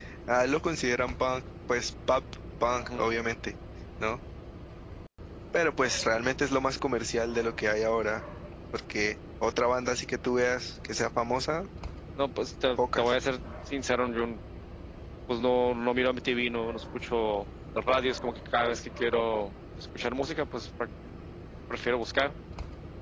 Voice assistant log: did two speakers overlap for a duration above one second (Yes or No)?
No